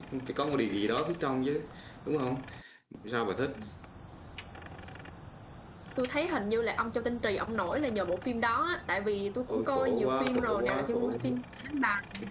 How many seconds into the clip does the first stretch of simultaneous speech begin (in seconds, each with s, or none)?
9.5 s